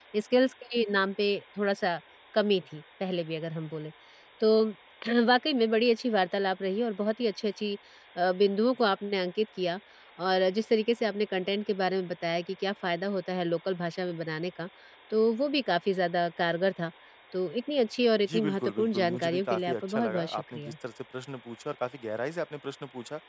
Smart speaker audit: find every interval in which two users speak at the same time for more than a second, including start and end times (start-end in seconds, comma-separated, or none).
18.3-20.7